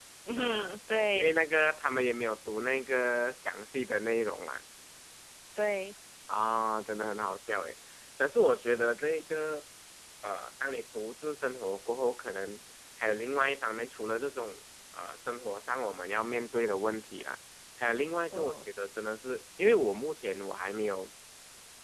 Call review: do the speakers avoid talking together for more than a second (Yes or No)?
Yes